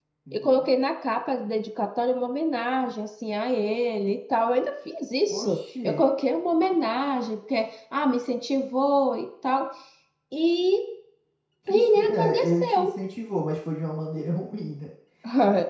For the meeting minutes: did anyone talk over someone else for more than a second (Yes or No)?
Yes